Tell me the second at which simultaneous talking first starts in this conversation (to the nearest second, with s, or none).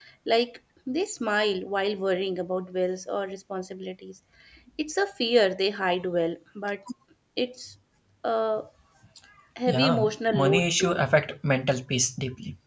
10 s